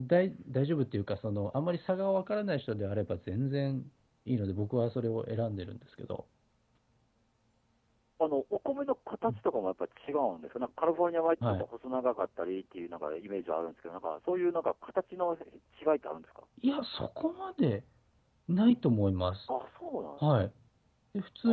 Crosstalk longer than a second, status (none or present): none